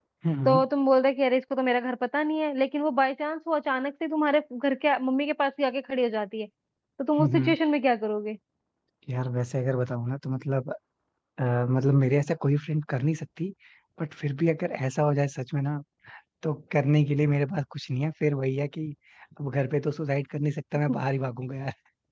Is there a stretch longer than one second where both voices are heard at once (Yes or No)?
No